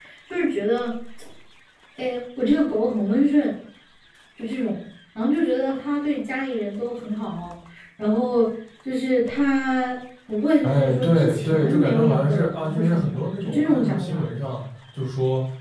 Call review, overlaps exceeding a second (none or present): present